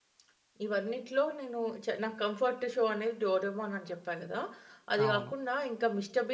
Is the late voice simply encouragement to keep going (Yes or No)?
Yes